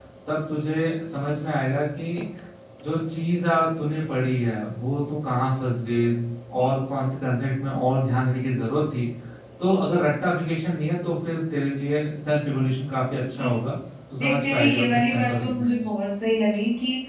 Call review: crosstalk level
present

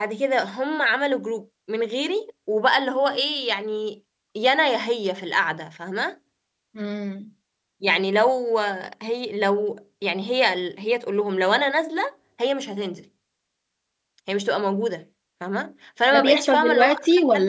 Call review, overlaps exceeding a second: present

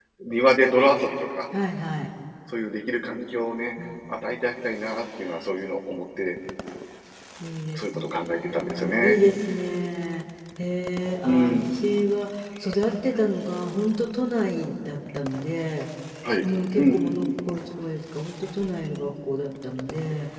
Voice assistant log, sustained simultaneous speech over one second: present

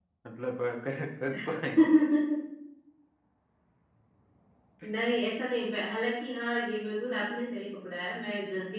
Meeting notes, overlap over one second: none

